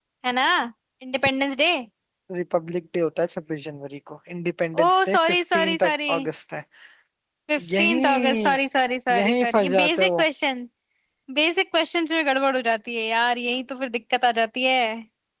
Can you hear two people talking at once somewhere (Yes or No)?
Yes